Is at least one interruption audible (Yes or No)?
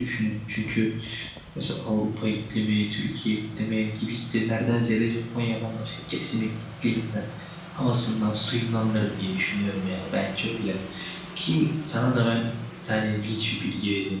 No